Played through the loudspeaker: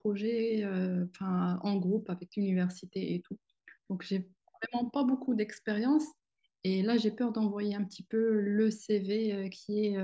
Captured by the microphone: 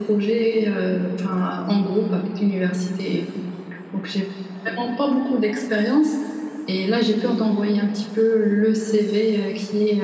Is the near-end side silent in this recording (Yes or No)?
Yes